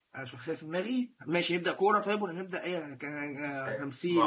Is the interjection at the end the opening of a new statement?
Yes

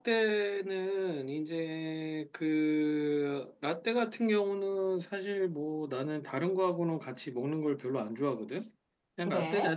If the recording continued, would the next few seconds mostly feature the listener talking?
No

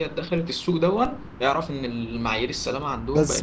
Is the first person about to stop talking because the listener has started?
Yes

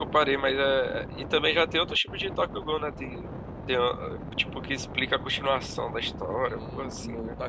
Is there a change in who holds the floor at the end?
Yes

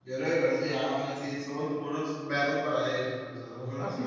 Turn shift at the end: Yes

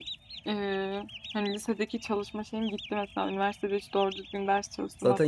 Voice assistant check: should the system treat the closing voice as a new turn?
Yes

